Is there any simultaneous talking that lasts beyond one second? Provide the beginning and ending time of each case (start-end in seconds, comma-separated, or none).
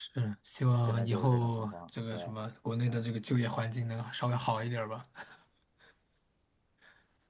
0.8-2.2